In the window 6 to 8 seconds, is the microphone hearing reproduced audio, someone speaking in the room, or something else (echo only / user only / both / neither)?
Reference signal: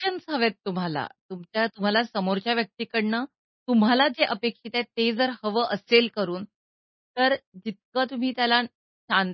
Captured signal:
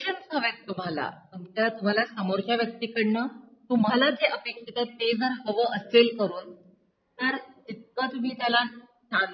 echo only